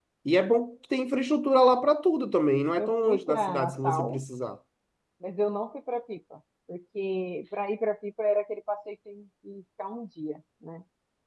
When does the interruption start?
2.8 s

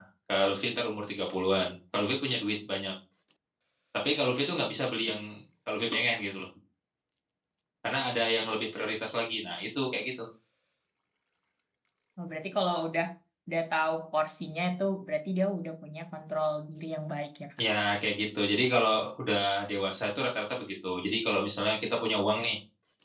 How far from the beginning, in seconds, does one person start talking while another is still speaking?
none

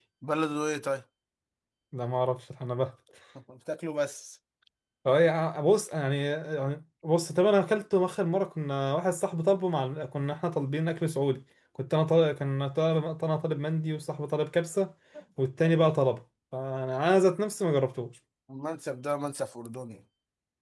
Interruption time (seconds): none

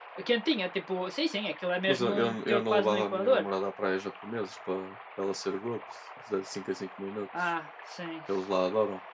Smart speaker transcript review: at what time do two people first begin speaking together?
1.9 s

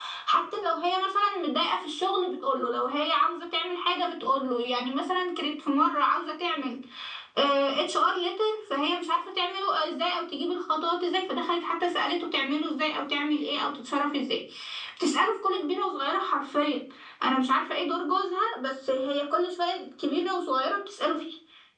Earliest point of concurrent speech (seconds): none

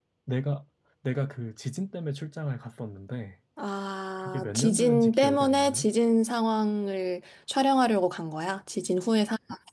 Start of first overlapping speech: 4.2 s

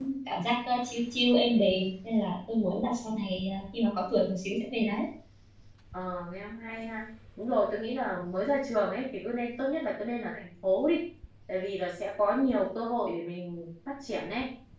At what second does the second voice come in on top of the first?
none

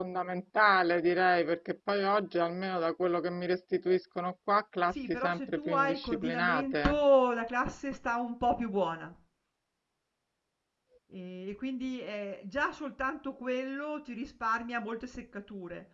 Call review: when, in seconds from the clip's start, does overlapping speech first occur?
4.9 s

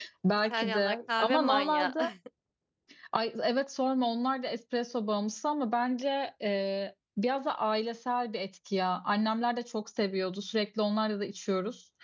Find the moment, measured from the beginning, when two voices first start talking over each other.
0.5 s

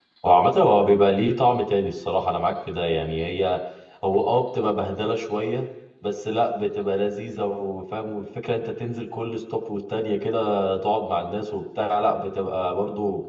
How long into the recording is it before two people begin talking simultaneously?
none

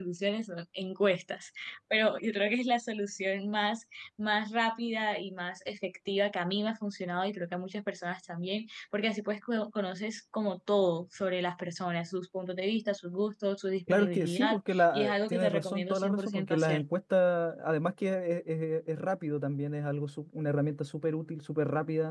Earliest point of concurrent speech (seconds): 13.9 s

